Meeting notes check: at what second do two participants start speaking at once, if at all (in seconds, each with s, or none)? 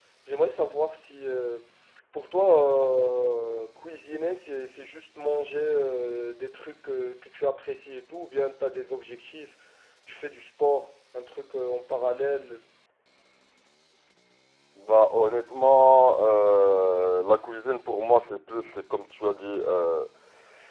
none